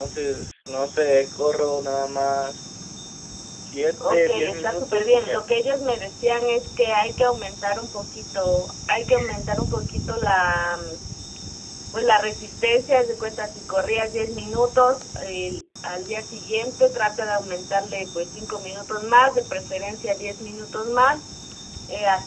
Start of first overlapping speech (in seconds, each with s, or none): 4.1 s